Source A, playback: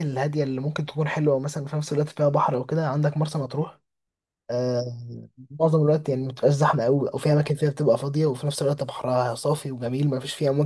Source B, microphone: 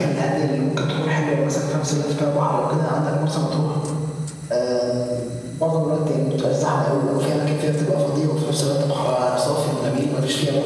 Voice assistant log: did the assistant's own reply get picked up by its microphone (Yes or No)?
Yes